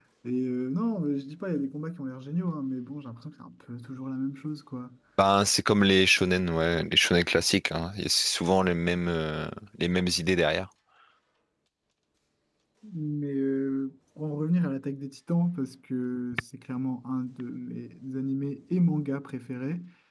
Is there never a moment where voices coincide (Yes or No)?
Yes